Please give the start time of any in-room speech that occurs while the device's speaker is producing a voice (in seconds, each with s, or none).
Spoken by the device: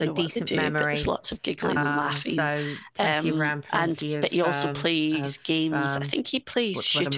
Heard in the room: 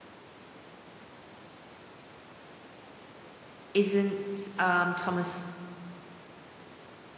3.7 s